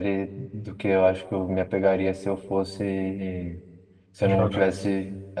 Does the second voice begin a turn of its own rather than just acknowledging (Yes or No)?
No